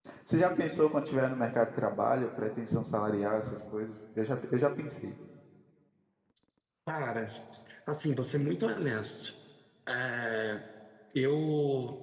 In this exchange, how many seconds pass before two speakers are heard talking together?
none

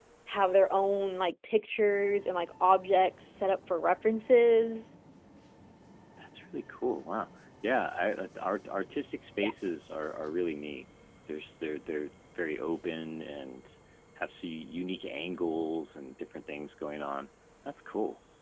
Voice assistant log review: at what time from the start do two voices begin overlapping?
none

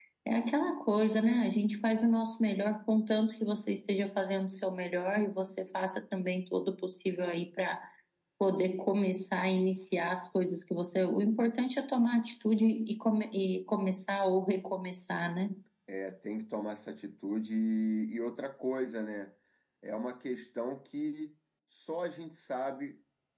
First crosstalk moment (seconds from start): none

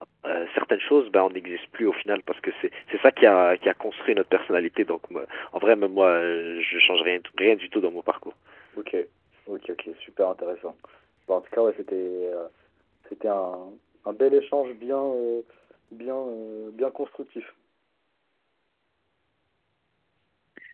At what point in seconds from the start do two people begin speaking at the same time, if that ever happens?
none

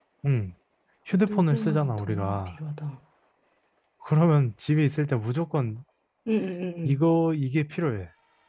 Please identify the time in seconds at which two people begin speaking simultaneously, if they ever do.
1 s

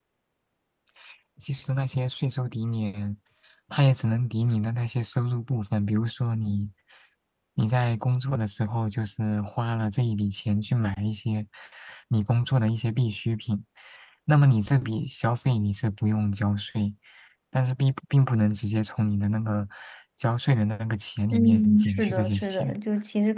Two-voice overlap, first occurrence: 21 s

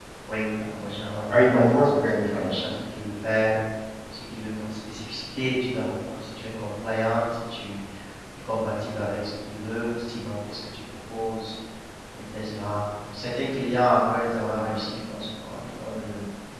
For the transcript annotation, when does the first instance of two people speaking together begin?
1 s

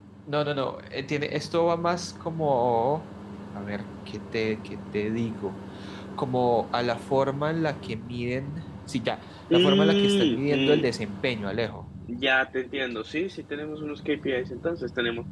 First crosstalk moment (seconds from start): 9 s

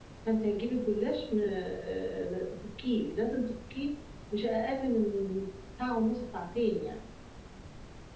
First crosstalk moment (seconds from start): none

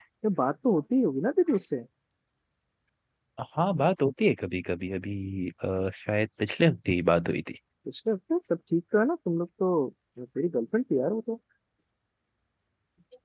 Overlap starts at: none

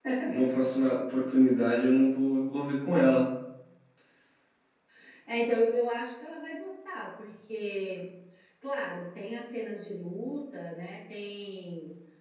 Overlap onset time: none

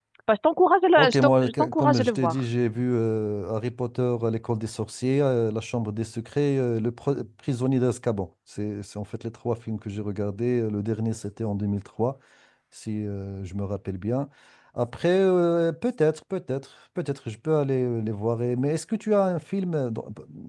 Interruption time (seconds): 1 s

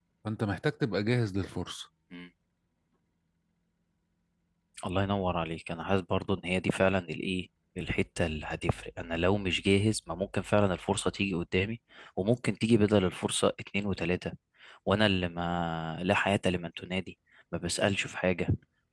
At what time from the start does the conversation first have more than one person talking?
none

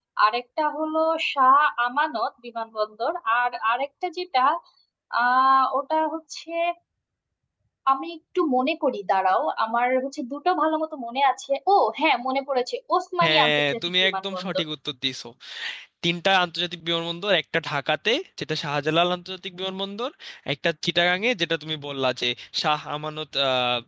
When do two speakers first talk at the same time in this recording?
13 s

